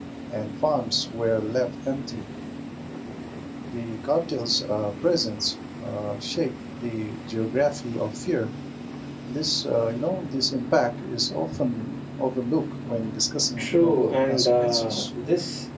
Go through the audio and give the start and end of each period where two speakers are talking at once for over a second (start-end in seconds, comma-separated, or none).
13.6-15.0